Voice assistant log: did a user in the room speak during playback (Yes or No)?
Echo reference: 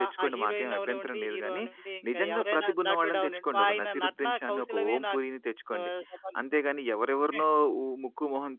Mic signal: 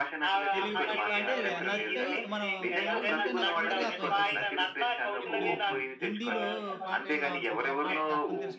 Yes